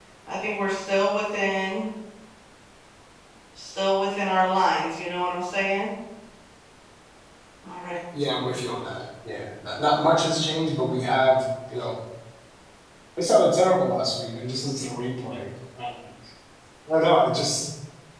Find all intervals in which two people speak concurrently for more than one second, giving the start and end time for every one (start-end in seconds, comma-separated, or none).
none